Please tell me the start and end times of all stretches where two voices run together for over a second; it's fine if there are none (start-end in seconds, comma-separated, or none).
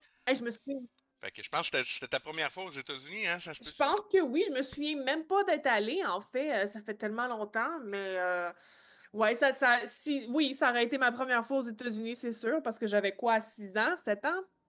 none